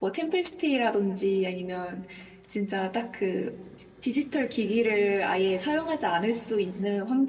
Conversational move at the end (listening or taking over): listening